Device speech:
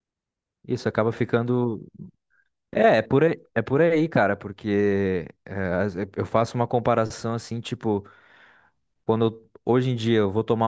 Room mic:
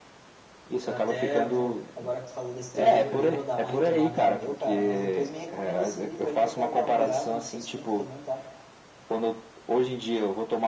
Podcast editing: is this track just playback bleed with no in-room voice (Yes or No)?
No